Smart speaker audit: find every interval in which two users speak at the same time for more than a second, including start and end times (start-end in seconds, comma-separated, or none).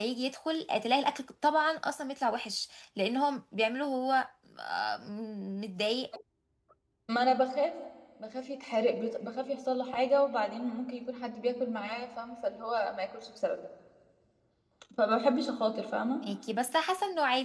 none